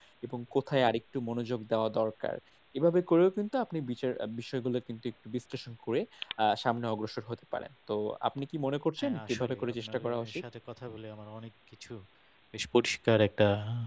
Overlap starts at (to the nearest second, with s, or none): 9 s